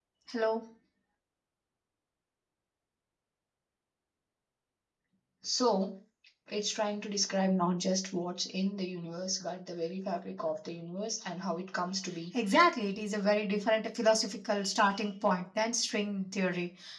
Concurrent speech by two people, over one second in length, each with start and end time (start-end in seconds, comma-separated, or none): none